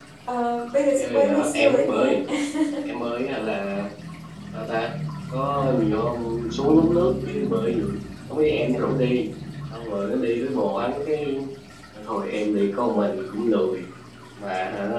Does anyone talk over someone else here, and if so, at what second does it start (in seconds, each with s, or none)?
1.0 s